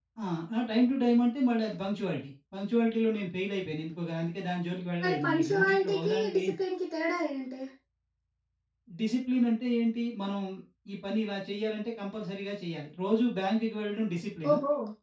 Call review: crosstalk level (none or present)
present